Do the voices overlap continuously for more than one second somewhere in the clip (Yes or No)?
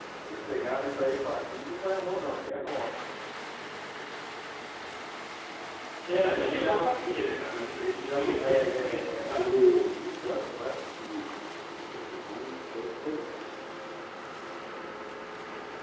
Yes